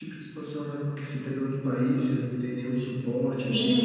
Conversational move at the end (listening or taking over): taking over